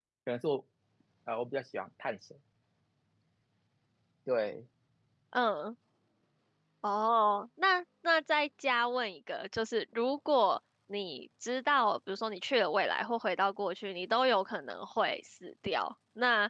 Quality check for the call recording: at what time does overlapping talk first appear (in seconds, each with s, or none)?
none